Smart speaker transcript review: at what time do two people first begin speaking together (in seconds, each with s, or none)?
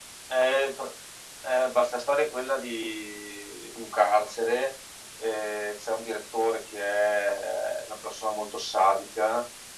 none